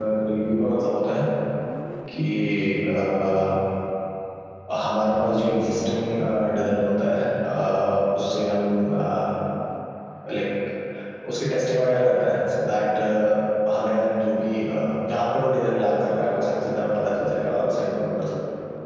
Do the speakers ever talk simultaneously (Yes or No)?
No